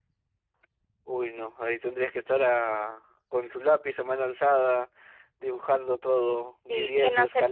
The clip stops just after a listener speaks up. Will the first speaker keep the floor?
No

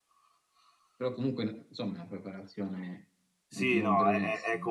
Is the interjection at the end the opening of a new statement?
Yes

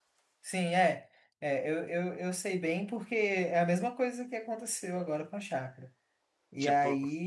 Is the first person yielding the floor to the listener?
No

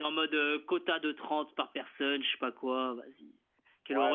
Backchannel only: No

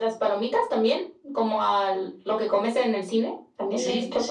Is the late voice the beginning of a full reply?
Yes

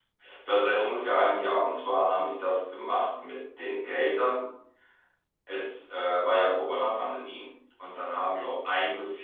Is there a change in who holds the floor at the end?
No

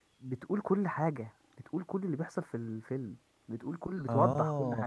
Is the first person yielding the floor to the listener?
Yes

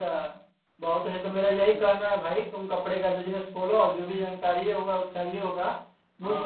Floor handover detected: No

